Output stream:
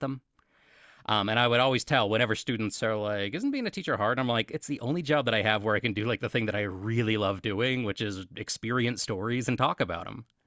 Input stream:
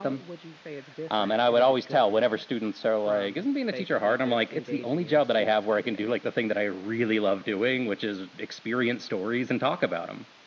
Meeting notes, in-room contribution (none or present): present